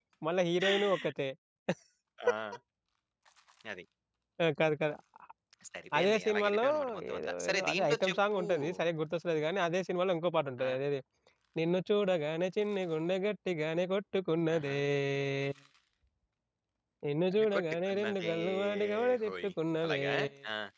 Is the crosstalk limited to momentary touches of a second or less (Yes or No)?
No